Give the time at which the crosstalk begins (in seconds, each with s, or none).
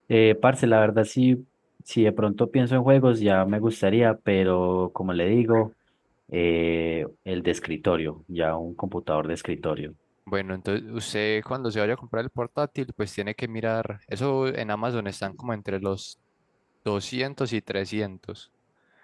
none